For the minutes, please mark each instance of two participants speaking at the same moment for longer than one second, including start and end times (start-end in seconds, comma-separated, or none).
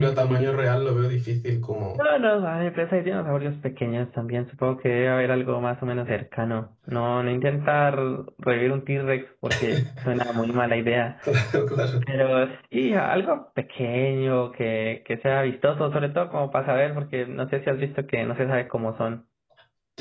none